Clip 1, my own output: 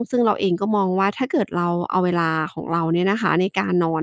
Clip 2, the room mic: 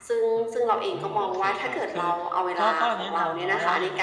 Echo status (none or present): present